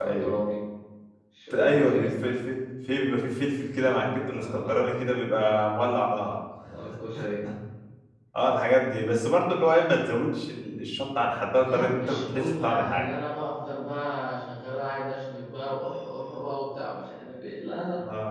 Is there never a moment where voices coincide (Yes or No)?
No